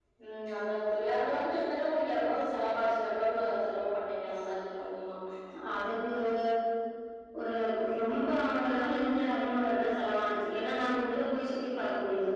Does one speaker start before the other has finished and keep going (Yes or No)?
No